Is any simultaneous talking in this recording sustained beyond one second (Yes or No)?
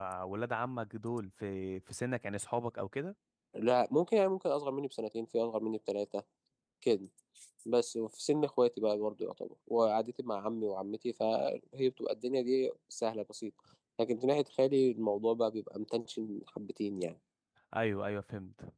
No